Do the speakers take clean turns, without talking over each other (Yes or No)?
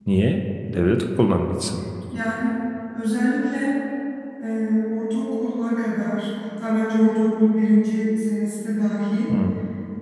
Yes